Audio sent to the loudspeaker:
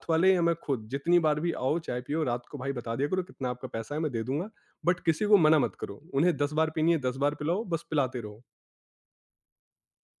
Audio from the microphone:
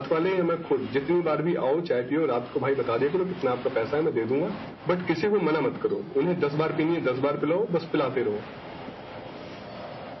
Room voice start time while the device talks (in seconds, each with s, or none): none